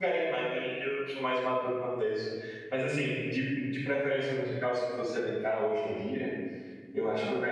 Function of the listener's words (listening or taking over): listening